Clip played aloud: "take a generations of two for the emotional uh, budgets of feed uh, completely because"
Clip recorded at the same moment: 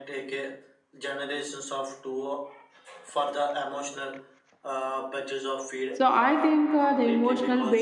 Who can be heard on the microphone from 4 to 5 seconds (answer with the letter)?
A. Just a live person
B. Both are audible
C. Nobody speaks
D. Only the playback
D